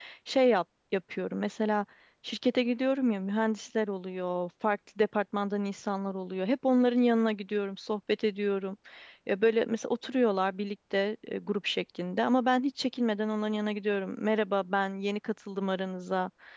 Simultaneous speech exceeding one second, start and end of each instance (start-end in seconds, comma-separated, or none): none